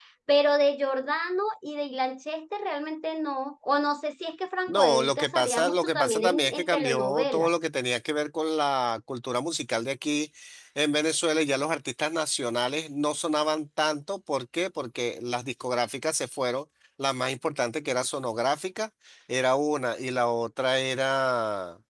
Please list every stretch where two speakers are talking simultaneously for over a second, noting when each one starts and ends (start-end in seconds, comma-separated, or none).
4.7-7.5